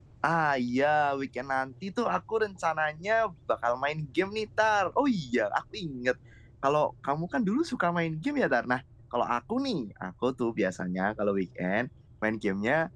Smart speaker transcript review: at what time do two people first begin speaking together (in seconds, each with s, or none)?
none